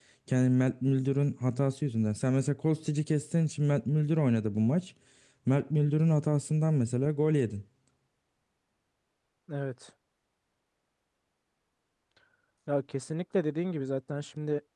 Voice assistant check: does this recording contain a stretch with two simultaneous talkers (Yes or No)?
No